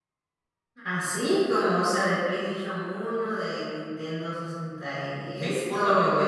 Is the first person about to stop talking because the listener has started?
Yes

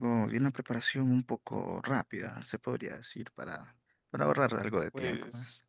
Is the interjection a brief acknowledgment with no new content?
No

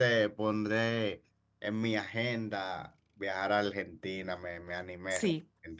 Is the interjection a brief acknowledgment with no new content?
No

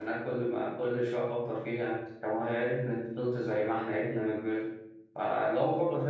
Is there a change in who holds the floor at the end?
No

